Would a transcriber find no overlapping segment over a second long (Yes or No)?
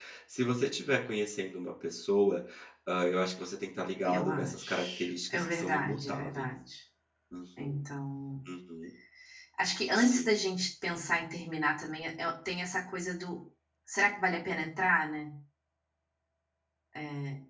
No